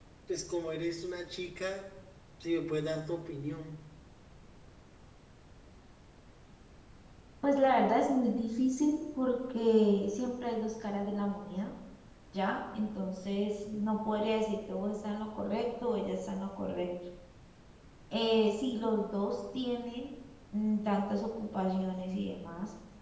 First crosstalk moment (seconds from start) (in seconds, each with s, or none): none